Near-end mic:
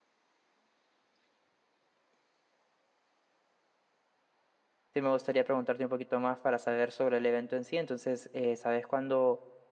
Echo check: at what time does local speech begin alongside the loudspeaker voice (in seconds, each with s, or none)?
4.9 s